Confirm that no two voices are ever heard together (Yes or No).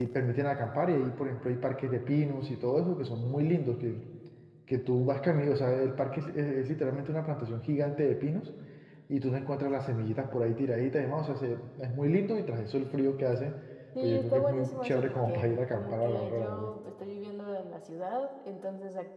No